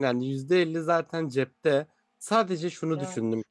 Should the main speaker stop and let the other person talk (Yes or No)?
No